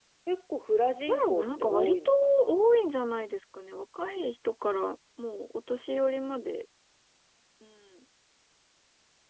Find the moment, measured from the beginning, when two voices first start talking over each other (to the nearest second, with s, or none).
1 s